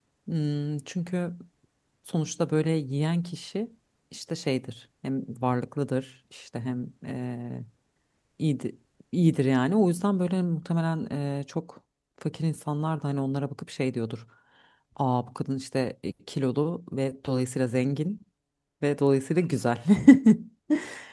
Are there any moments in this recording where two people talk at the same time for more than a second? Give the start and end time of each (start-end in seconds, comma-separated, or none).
none